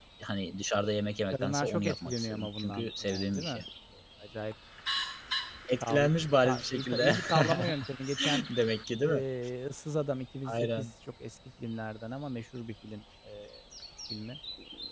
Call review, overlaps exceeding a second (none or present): present